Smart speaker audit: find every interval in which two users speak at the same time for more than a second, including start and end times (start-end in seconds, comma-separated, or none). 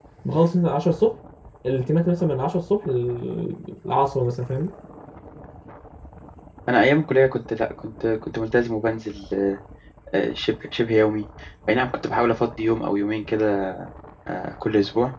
none